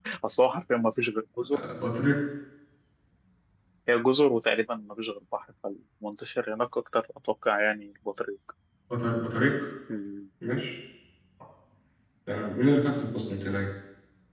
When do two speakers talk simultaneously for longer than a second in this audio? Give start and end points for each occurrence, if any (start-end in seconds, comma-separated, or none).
none